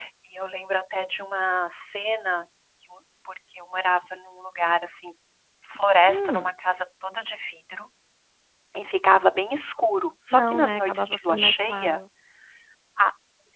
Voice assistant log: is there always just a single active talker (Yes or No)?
No